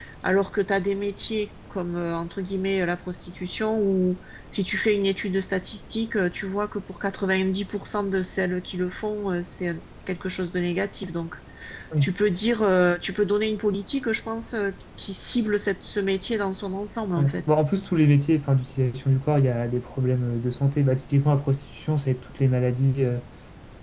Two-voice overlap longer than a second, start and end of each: none

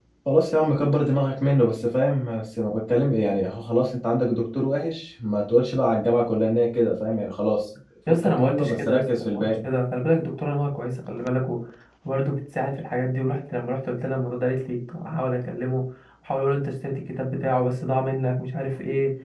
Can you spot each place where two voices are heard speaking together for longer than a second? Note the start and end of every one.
8.1-9.4

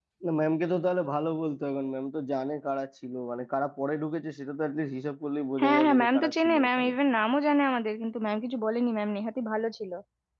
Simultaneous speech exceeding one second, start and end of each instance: 5.6-6.9

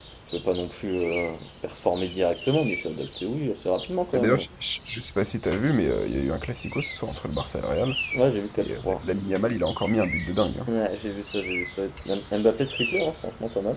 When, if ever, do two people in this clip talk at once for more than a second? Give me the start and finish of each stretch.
none

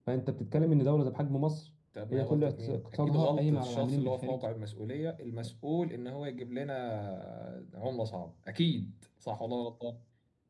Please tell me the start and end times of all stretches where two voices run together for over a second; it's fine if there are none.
2.1-4.4

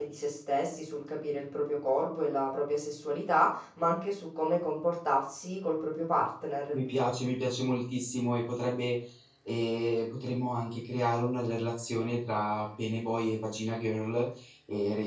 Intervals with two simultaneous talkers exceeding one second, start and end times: none

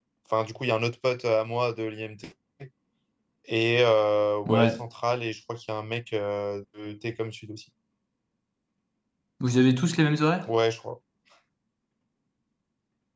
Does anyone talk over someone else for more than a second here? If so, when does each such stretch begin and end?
none

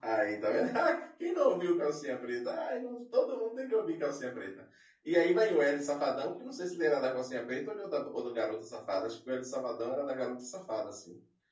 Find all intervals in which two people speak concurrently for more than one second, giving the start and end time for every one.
none

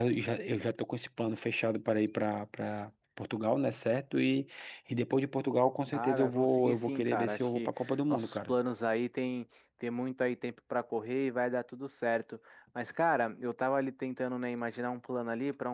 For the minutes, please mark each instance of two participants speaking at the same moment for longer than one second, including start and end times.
5.9-8.6

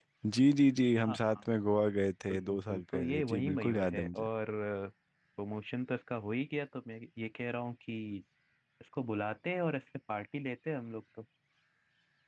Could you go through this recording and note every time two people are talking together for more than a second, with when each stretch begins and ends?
2.3-4.2

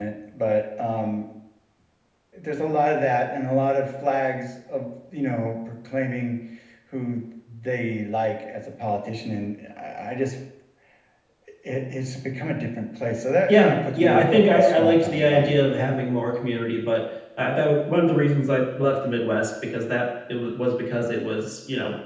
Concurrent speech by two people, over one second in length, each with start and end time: 13.5-15.6

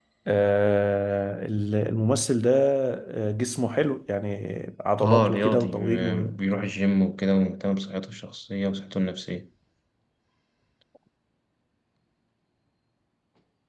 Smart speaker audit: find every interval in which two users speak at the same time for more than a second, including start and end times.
5.0-6.2

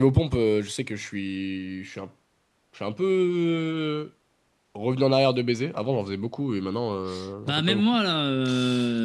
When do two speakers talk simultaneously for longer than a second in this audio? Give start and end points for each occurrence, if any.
none

